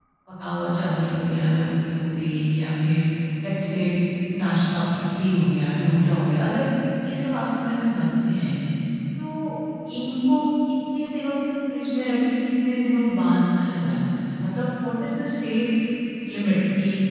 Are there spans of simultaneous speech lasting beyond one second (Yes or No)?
No